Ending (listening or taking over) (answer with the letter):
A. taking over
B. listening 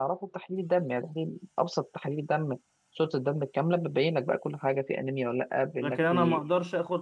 A